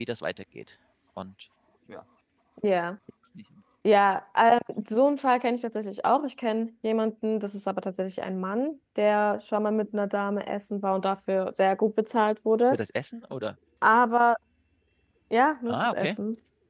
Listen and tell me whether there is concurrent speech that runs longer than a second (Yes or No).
No